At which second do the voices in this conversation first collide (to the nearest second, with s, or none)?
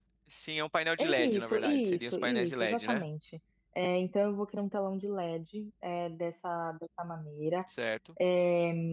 1 s